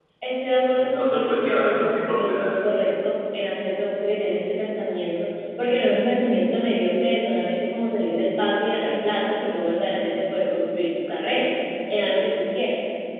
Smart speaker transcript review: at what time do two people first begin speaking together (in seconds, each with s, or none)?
0.8 s